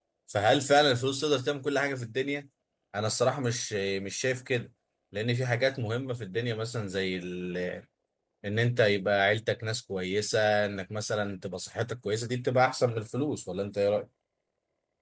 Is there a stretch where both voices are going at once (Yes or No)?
No